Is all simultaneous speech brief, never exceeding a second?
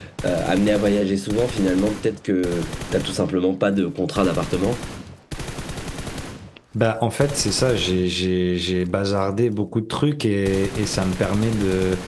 Yes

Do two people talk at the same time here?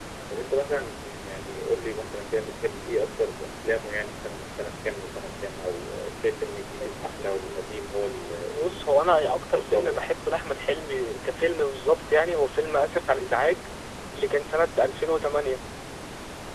Yes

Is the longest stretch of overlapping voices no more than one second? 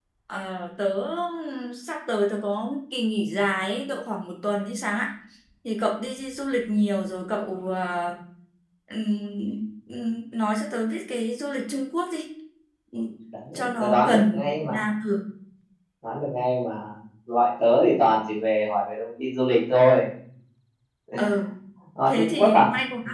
No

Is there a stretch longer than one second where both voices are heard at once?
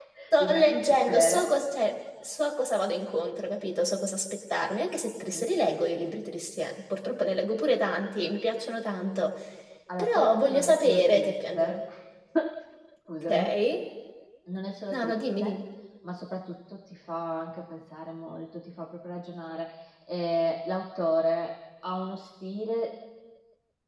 Yes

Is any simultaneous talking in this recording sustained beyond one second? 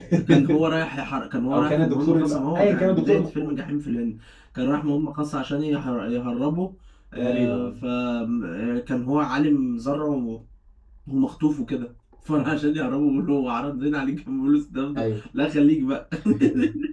Yes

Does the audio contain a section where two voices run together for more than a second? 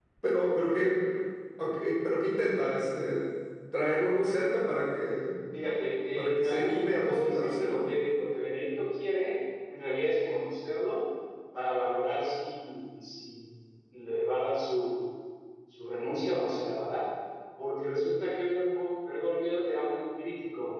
Yes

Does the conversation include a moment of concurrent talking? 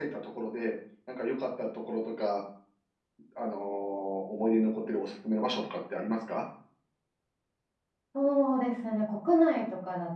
No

